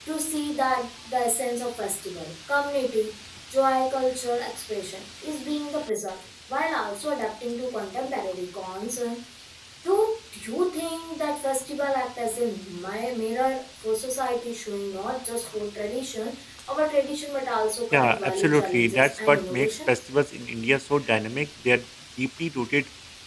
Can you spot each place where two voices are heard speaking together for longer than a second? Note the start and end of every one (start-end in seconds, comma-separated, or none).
17.9-20.0